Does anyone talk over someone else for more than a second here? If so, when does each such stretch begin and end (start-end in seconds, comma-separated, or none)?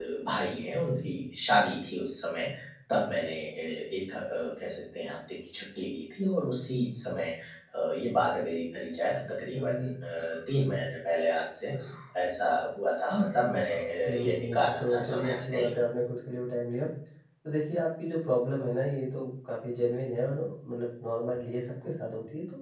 14.1-15.8